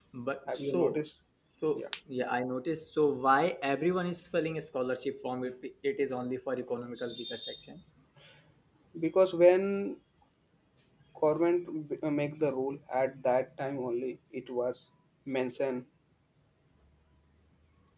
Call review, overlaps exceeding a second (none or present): none